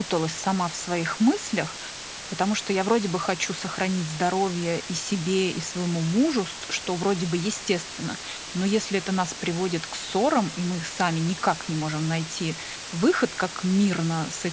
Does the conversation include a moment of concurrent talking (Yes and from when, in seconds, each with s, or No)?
No